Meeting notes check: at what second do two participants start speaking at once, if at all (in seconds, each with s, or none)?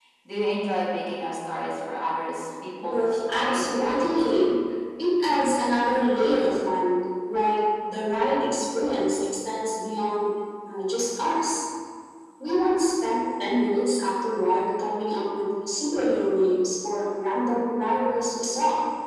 2.8 s